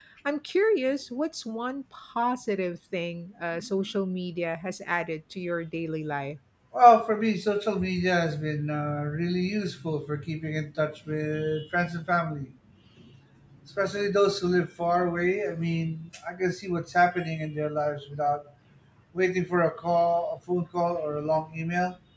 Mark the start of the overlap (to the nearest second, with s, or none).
none